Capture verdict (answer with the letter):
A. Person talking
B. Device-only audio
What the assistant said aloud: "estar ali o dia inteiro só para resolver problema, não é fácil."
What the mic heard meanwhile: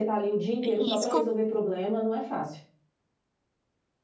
A